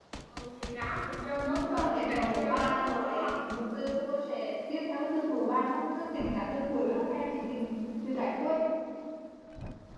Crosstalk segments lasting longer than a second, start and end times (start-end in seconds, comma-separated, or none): 1.4-3.4